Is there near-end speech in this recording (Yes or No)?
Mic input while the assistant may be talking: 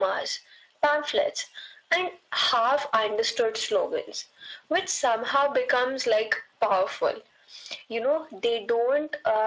No